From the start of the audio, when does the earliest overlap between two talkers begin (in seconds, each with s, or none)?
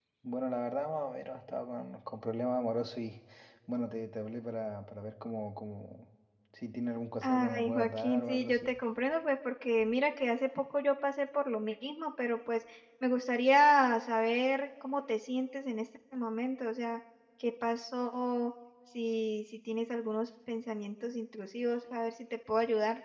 7.2 s